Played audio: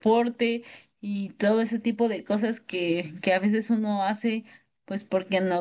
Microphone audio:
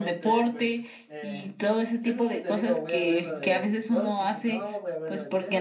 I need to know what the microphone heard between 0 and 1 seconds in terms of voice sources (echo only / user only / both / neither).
both